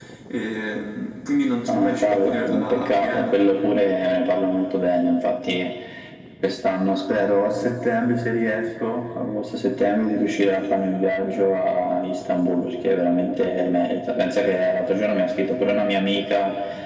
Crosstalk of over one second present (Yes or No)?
Yes